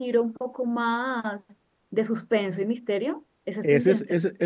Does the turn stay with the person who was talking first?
No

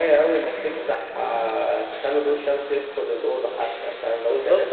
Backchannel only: No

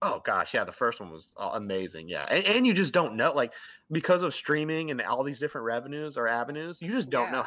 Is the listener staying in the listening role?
Yes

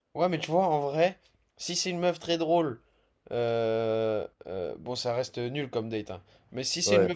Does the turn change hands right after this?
No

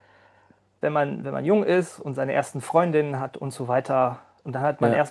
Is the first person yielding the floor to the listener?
No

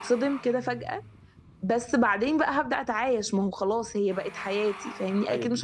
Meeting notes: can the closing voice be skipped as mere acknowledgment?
No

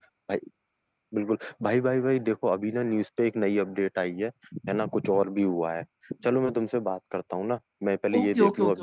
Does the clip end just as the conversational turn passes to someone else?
Yes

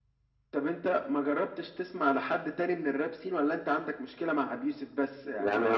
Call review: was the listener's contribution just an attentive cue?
No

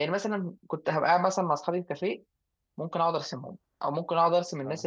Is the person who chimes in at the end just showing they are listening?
Yes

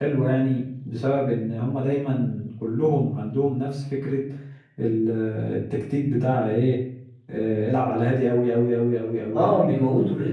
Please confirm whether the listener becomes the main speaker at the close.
Yes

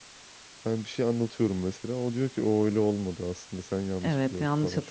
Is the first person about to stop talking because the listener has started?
Yes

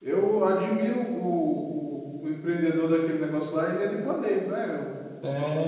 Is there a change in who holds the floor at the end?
Yes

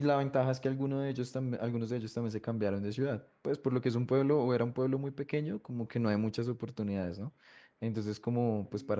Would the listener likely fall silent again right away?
Yes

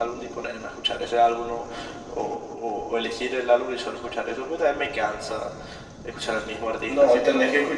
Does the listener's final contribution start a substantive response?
Yes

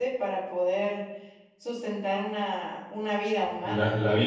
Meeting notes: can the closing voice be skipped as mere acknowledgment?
No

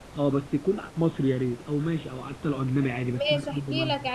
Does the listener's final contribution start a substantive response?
Yes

